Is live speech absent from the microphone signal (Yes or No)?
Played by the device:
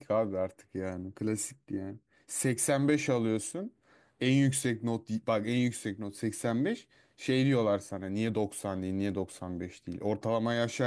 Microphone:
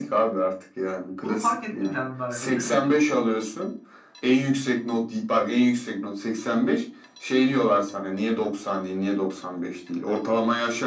No